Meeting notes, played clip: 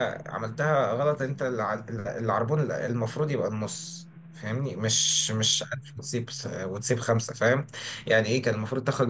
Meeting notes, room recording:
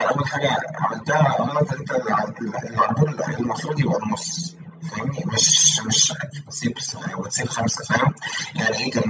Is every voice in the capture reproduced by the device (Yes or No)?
Yes